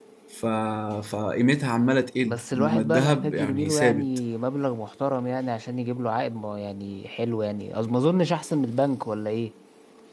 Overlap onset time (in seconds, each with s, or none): 2.2 s